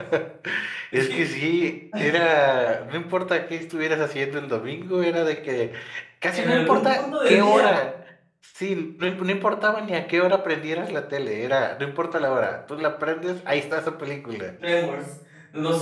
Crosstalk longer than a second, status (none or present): present